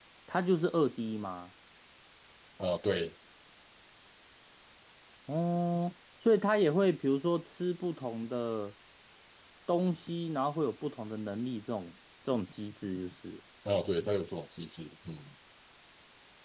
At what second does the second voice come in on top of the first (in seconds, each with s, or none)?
none